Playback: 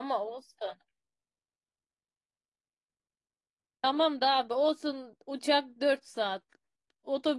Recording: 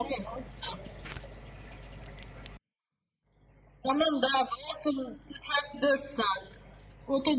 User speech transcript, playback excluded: none

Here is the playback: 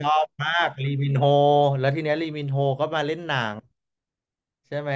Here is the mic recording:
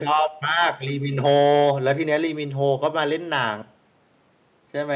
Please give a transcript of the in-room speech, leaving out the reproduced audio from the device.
none

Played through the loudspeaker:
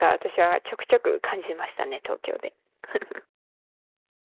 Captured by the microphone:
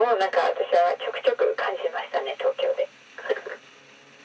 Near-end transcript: none

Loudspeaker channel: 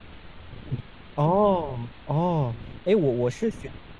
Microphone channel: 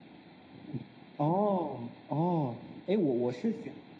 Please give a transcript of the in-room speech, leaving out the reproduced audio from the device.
none

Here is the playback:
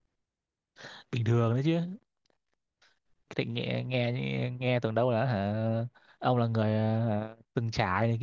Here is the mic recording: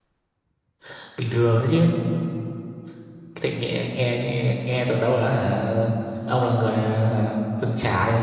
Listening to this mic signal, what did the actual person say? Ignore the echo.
none

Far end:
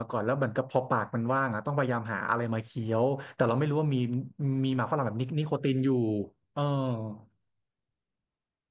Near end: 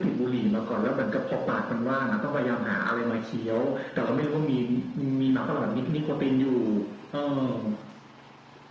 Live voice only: none

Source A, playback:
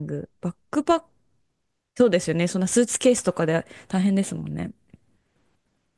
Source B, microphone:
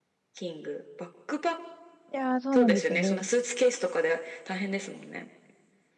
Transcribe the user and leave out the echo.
いやー、そうなんですよね。

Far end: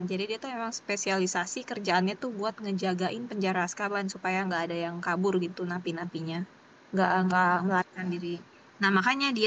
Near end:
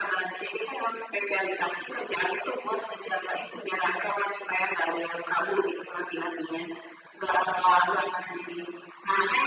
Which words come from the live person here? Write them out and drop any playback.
none

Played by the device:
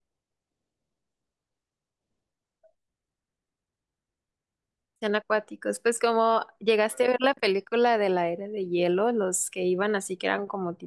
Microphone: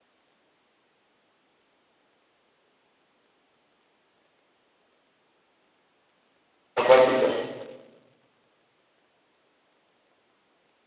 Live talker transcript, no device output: Acuáticos.

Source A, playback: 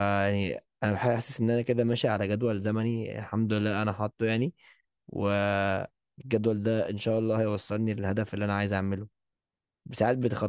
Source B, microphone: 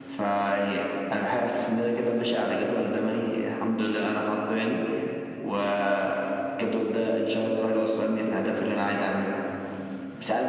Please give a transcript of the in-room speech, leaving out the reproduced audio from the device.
none

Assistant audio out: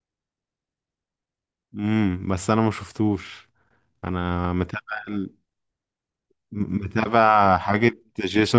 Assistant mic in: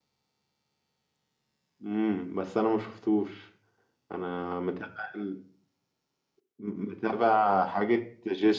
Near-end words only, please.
none

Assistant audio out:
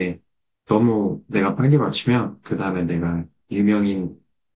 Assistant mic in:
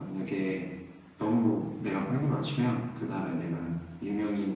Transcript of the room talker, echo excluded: none

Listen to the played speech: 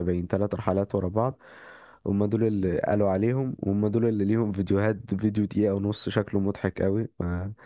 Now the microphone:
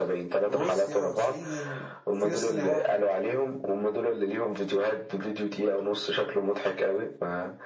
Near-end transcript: روسيا الصين في ناس تانية راحت

